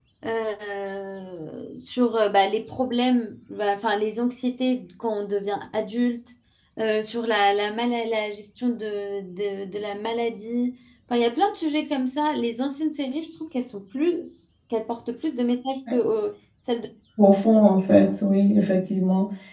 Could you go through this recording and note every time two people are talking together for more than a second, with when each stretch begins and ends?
none

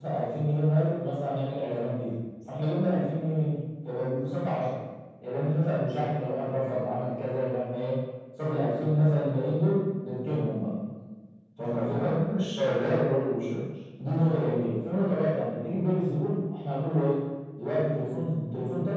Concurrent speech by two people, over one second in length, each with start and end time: none

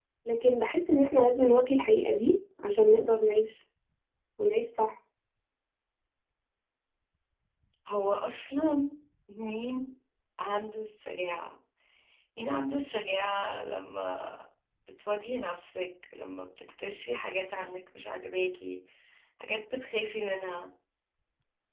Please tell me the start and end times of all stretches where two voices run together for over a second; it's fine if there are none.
none

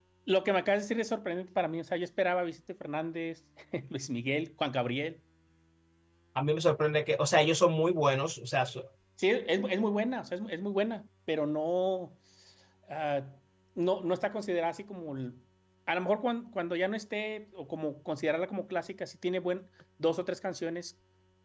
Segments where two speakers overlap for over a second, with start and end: none

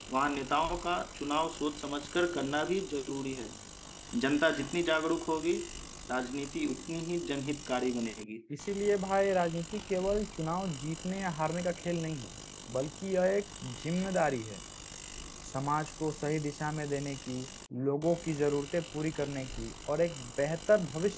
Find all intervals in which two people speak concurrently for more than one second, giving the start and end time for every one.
none

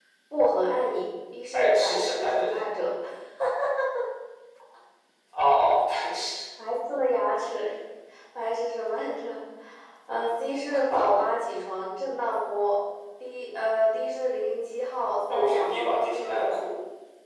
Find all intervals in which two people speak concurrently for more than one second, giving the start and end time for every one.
1.5-2.8, 15.3-16.6

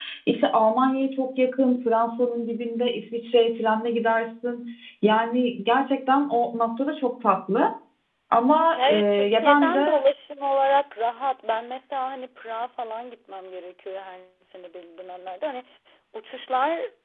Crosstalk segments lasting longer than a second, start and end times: 8.8-10.0

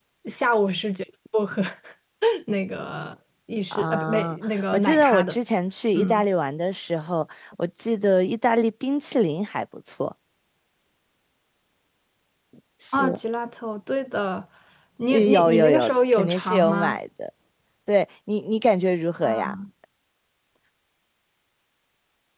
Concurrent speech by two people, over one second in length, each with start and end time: 3.7-5.4, 15.1-17.0

